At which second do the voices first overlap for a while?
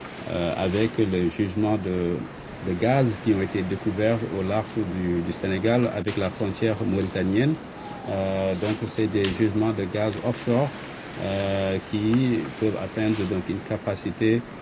none

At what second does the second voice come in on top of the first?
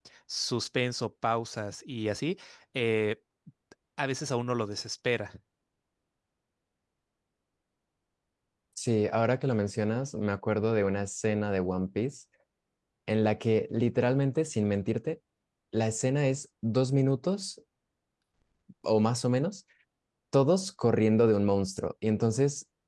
none

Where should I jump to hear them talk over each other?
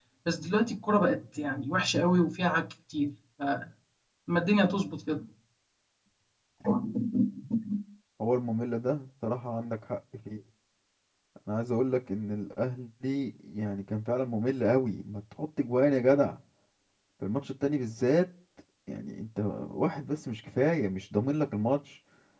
none

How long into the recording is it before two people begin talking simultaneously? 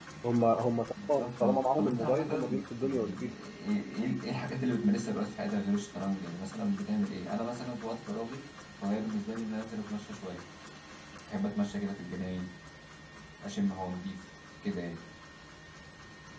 1.1 s

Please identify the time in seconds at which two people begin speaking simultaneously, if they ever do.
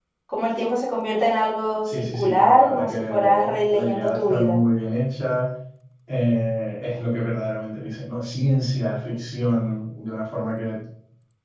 1.8 s

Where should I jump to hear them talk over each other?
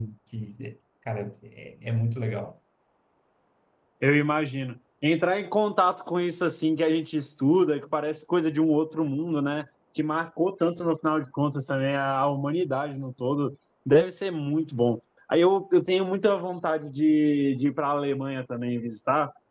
none

